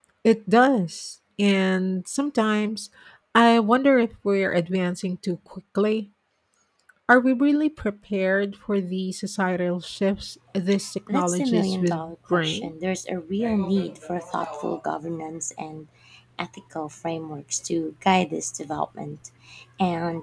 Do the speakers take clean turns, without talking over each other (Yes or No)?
No